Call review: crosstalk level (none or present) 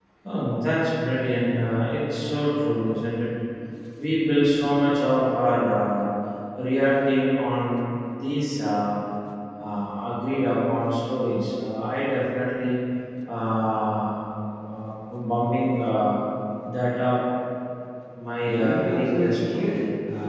present